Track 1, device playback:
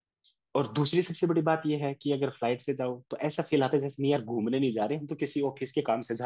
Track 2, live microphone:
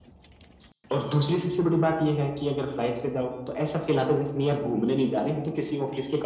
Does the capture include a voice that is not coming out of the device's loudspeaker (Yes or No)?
No